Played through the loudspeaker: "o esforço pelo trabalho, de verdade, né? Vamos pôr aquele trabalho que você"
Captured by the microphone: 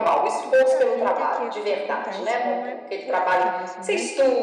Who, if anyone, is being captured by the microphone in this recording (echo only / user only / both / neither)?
both